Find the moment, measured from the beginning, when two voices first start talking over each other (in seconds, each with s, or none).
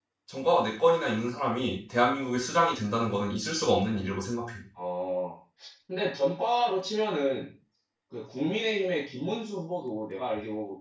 none